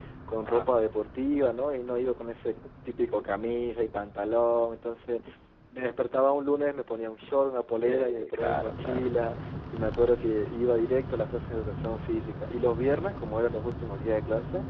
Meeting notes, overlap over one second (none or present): present